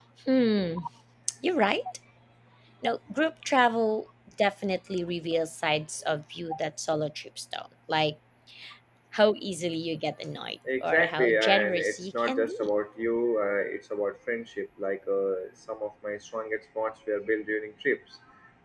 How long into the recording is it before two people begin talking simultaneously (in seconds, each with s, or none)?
10.7 s